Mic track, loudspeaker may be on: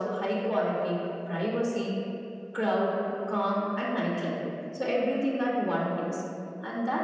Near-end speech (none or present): none